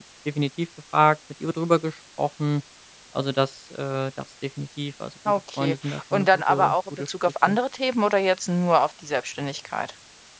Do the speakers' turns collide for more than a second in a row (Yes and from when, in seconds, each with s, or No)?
Yes, from 5.2 s